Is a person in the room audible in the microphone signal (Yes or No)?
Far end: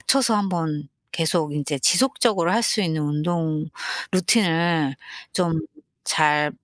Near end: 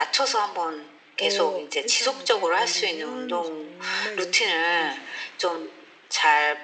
Yes